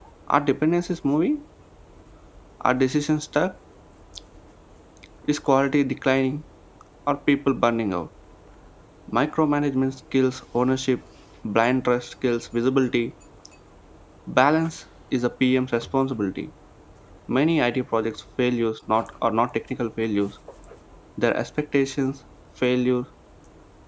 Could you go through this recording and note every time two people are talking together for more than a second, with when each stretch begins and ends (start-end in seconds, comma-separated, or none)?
none